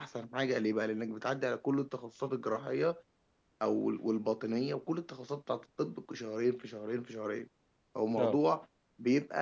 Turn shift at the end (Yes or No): No